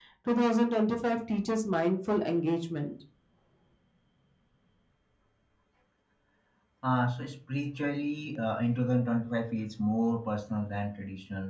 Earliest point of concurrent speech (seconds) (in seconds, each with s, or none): none